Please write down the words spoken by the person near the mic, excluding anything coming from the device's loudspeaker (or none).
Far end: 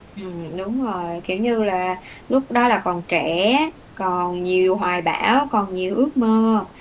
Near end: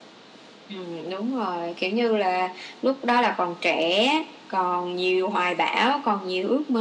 none